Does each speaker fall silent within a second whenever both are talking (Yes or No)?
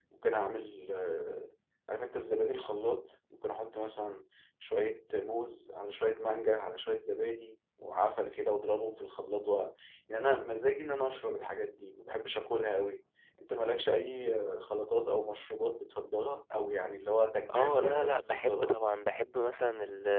No